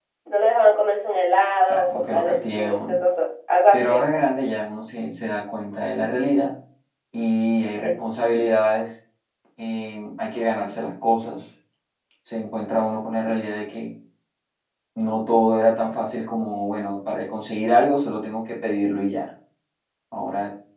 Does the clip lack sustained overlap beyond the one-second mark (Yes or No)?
No